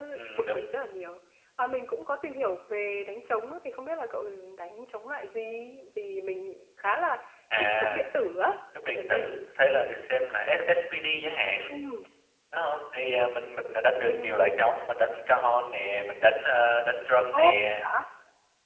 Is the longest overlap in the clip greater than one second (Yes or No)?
No